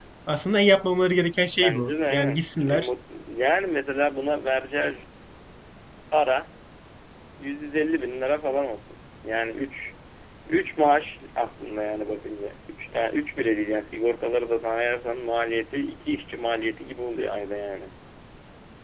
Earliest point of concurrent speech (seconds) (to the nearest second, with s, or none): 2 s